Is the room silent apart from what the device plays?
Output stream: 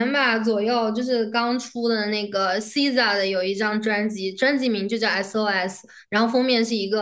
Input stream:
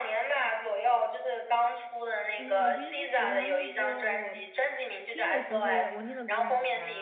No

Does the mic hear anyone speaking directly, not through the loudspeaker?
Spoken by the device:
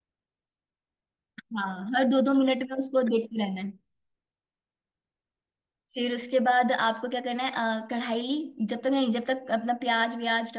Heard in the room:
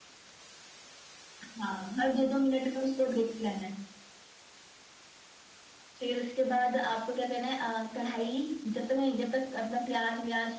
No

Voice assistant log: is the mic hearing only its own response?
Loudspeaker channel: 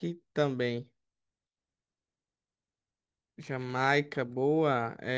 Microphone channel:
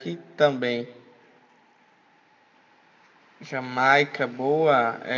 Yes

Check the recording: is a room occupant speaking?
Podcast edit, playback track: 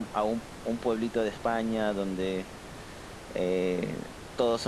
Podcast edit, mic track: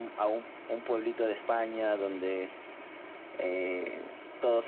No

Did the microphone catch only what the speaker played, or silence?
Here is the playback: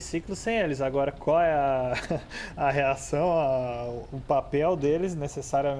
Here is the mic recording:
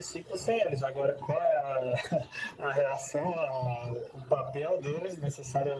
Yes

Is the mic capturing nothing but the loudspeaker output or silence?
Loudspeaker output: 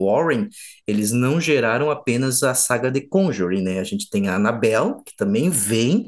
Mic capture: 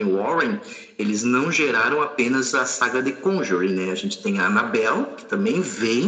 Yes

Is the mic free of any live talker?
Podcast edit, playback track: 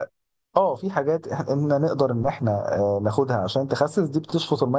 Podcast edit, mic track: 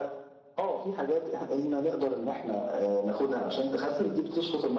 Yes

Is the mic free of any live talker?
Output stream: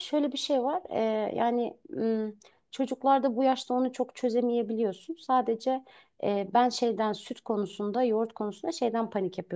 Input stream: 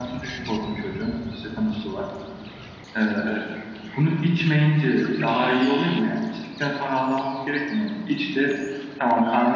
No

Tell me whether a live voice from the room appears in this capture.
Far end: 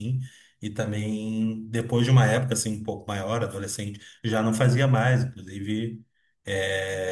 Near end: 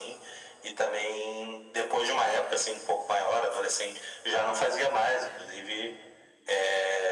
No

